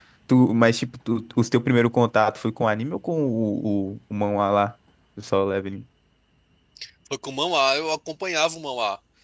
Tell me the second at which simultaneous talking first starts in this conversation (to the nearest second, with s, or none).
none